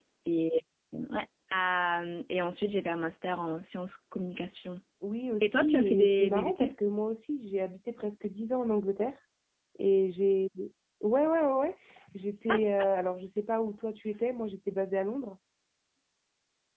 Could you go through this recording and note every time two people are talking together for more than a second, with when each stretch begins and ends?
5.4-6.7

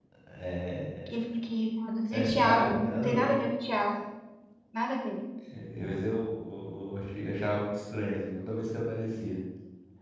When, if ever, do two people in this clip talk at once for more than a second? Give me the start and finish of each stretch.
2.1-3.3

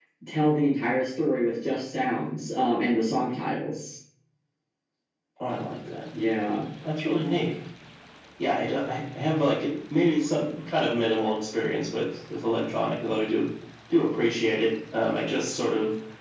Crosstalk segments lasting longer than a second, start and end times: none

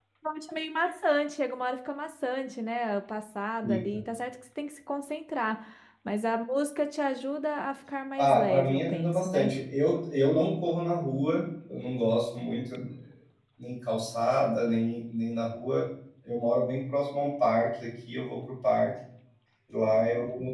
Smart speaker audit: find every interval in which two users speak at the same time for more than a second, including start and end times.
8.2-9.5

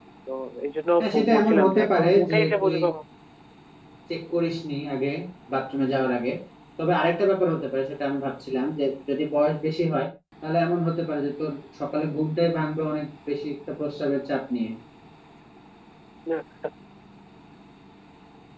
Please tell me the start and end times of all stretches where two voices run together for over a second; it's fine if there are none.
1.0-2.8

